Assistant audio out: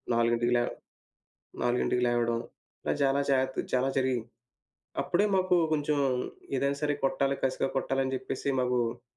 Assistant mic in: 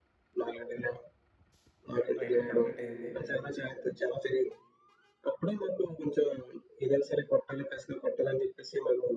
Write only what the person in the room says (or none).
ట్రైనింగ్ కంప్లీట్ అయింది.